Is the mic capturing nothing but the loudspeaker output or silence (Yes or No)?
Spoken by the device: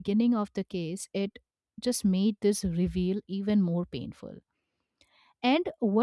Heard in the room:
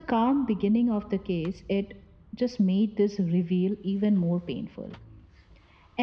Yes